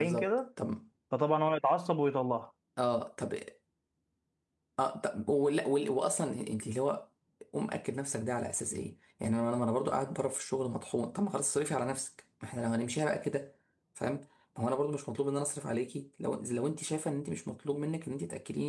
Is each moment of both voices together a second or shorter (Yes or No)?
Yes